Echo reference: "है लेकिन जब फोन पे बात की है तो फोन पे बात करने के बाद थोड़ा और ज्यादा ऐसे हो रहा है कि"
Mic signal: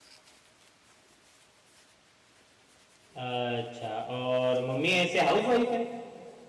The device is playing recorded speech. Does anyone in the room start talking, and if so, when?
3.2 s

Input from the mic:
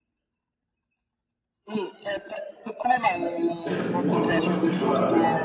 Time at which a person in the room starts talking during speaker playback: 3.6 s

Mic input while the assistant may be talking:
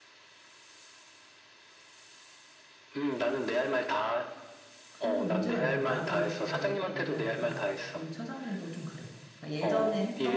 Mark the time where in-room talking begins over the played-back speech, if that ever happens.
4.9 s

